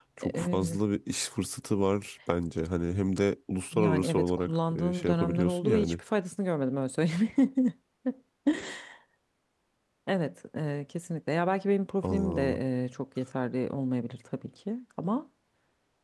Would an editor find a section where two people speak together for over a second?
Yes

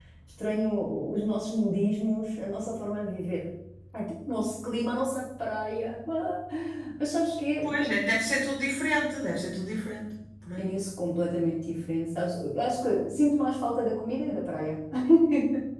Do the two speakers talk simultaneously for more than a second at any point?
No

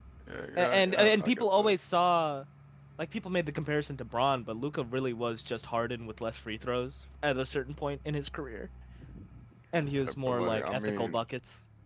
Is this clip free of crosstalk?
No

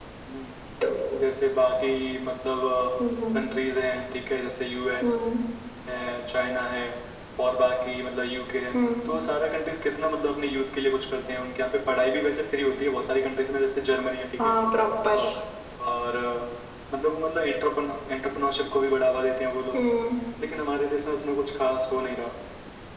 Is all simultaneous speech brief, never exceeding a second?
Yes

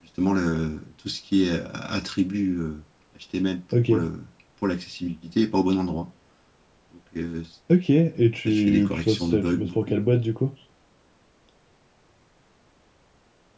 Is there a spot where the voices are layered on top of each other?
Yes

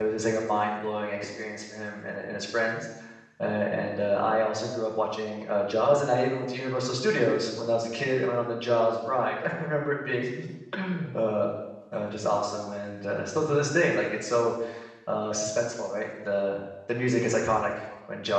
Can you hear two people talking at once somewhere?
No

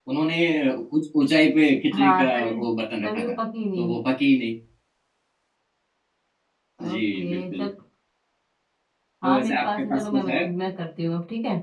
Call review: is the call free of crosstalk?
No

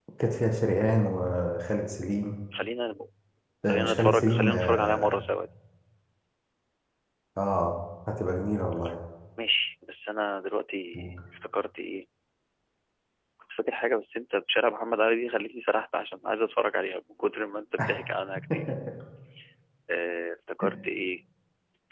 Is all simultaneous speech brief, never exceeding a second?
No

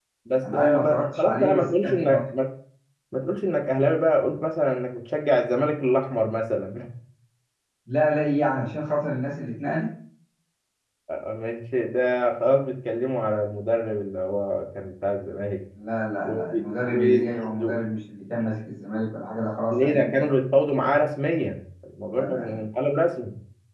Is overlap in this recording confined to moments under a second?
No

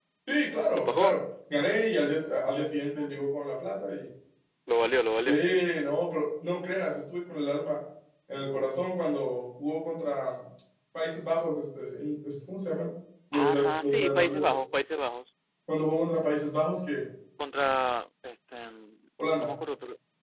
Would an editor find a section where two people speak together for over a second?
Yes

